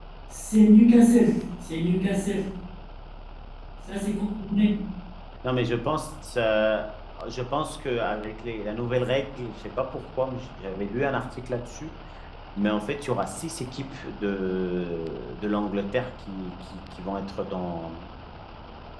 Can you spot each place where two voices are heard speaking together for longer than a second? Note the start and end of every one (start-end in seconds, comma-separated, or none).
none